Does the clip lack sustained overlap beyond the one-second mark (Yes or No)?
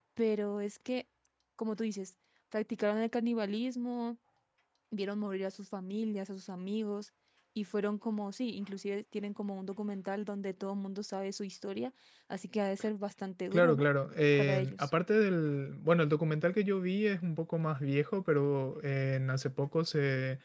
Yes